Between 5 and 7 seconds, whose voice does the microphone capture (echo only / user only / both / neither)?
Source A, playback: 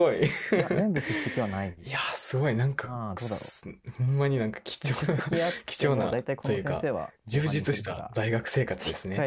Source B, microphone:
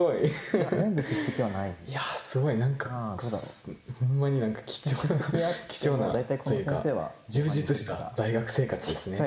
echo only